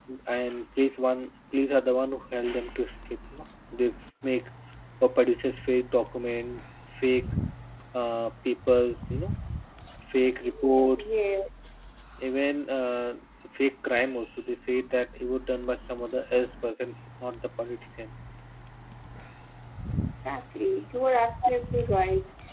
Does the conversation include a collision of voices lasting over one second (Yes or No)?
No